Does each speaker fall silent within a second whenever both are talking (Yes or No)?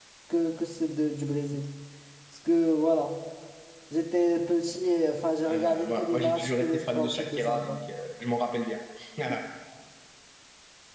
No